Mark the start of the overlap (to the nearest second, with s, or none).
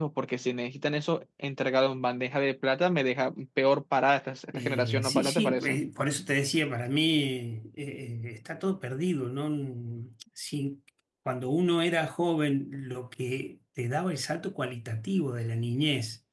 5 s